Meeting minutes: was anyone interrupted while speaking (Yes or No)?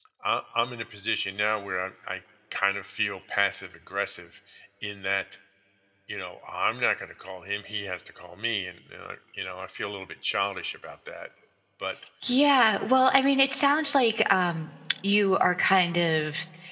No